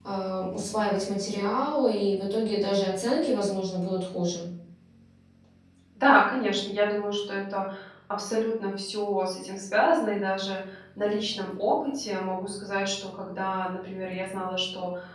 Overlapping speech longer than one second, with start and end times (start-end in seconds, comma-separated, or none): none